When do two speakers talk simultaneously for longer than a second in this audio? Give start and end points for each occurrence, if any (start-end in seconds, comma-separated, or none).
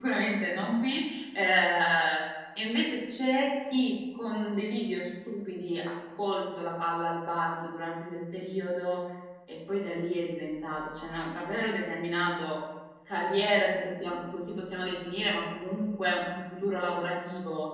none